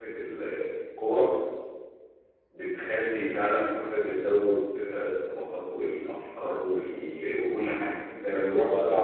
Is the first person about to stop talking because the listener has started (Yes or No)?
No